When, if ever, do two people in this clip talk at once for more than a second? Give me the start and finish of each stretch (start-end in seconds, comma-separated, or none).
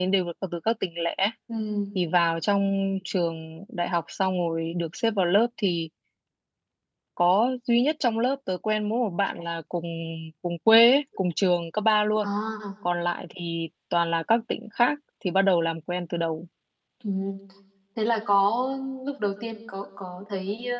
none